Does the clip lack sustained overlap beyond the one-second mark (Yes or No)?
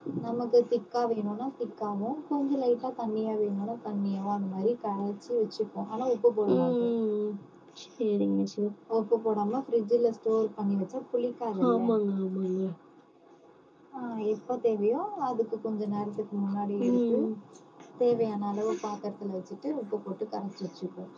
Yes